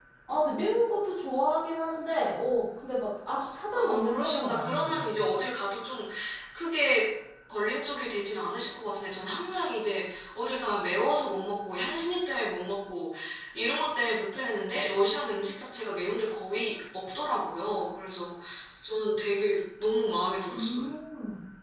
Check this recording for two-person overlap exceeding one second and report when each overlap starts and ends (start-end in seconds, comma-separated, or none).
3.7-5.0